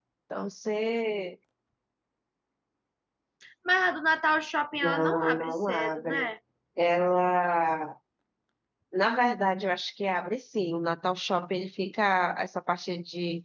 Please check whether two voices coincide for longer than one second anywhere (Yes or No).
Yes